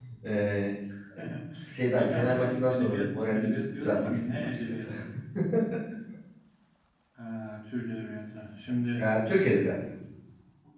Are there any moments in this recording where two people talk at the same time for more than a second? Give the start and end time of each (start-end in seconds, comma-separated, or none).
2.0-4.9